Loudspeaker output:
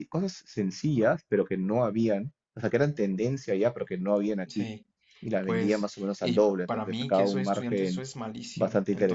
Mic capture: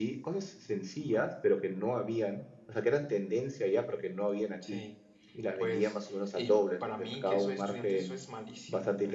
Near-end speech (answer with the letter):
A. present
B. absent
B